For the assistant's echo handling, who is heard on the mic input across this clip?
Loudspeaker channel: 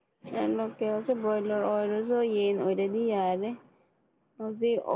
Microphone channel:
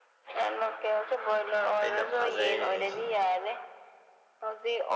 both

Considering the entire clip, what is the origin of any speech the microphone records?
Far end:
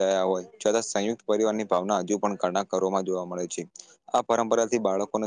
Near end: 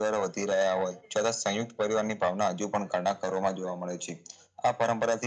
echo only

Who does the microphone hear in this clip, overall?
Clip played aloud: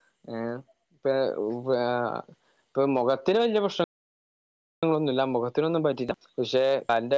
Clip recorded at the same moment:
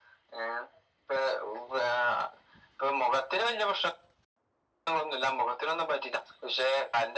echo only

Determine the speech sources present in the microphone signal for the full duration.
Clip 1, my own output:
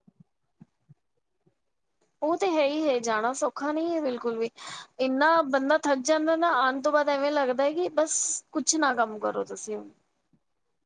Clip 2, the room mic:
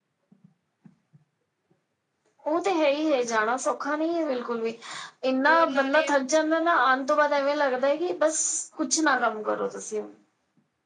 both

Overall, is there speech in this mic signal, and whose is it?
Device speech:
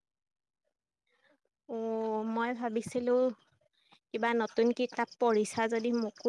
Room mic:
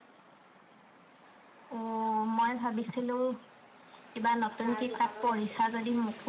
both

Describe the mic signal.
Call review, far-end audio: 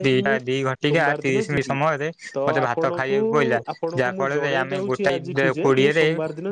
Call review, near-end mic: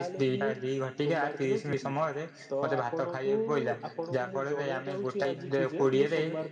echo only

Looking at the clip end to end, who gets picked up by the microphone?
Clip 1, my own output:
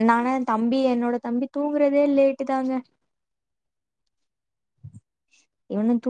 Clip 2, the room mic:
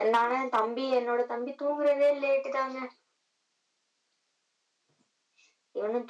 echo only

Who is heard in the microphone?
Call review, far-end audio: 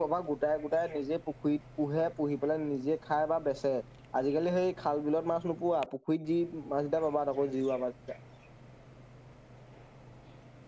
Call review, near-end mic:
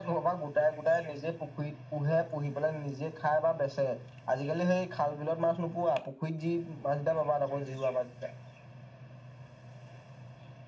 echo only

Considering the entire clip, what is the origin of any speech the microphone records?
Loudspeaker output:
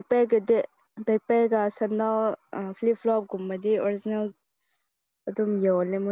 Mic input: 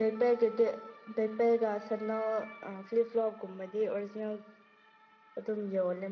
echo only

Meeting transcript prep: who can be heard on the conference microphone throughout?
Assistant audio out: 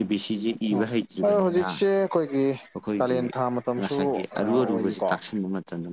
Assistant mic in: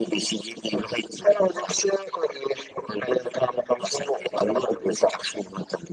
echo only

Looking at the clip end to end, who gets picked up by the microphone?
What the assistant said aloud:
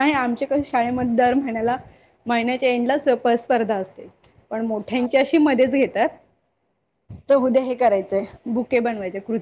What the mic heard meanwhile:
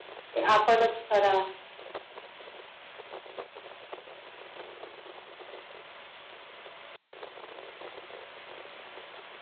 user only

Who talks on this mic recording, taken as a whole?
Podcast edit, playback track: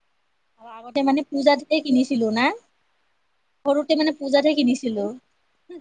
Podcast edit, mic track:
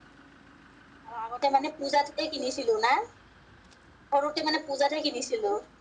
echo only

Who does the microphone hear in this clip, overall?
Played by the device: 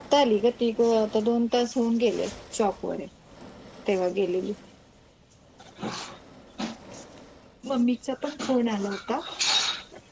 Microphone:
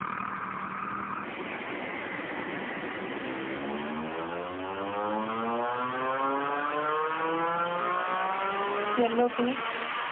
user only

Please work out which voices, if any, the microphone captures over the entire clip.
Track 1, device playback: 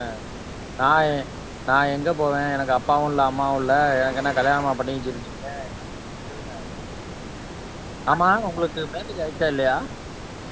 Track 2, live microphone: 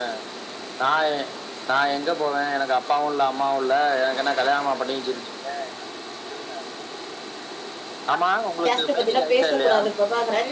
both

